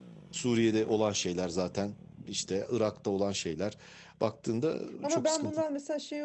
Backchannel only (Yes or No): No